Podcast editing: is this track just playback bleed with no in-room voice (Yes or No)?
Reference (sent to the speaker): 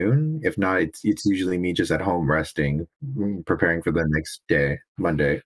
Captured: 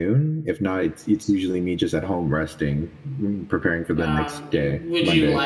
No